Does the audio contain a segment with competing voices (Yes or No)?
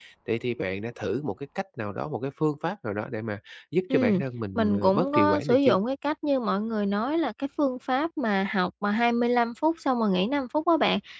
Yes